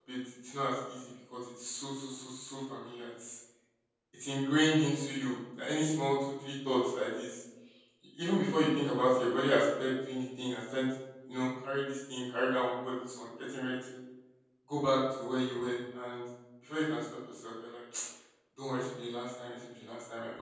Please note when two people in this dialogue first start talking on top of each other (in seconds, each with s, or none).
none